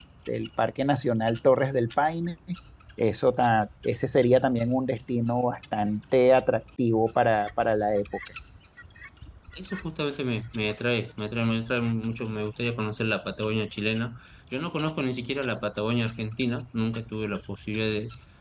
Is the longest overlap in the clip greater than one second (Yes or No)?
No